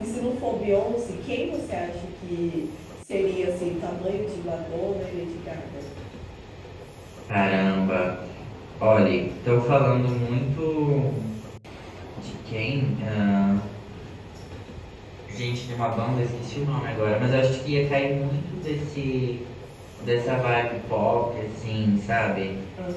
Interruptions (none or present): none